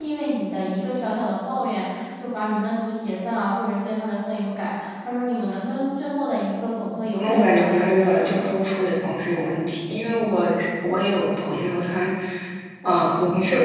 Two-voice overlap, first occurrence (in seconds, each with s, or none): 7.1 s